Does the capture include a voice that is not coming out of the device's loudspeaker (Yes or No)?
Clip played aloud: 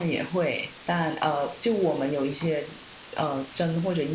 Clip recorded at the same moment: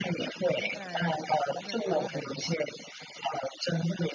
Yes